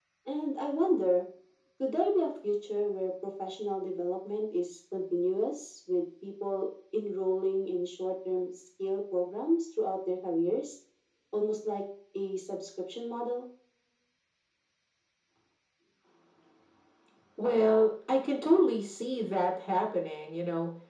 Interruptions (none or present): none